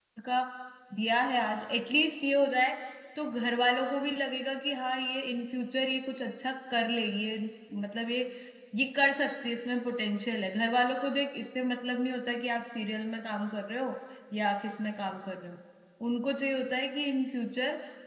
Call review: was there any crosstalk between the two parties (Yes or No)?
No